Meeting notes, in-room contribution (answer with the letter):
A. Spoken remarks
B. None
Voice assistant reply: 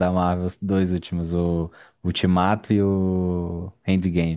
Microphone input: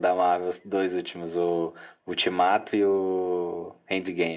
B